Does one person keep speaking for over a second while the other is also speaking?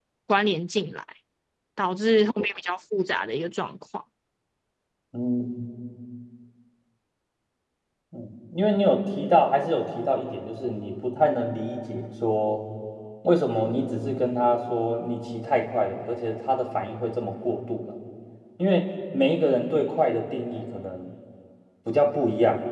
No

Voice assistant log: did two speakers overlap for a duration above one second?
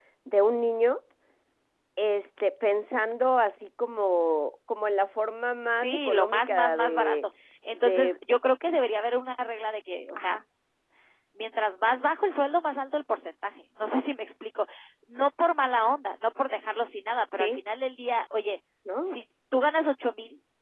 Yes, from 5.8 s

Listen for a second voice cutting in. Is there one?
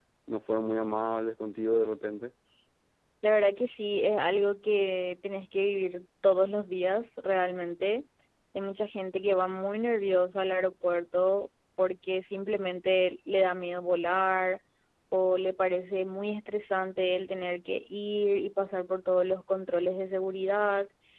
No

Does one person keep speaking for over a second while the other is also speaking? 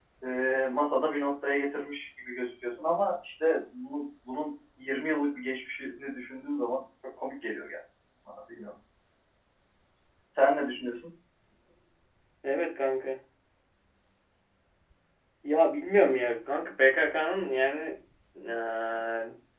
No

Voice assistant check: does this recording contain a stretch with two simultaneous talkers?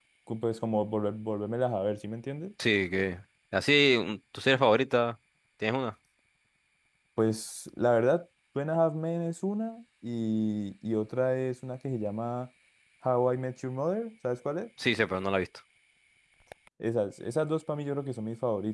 No

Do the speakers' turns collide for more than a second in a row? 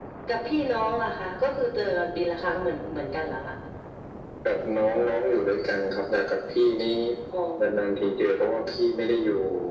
No

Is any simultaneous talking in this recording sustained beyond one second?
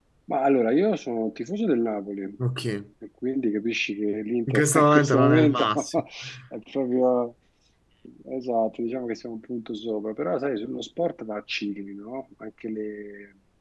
Yes, from 4.5 s

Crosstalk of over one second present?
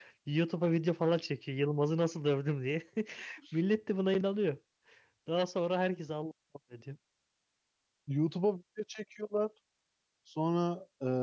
No

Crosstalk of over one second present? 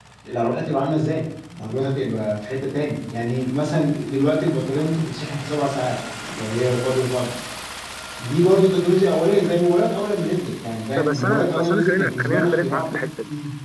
Yes, from 11.0 s

